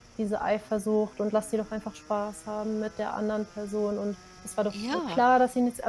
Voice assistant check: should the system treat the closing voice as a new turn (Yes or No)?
No